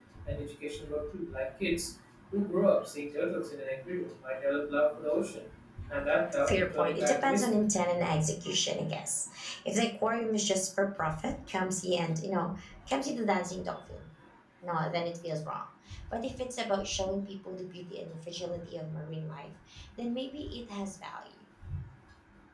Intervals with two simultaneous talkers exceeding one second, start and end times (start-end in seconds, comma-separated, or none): 6.3-7.5